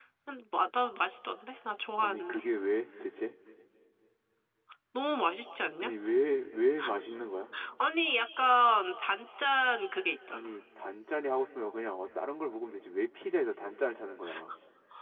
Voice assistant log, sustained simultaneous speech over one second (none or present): none